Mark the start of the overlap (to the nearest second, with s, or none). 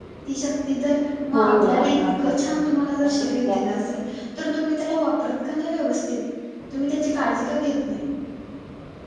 1 s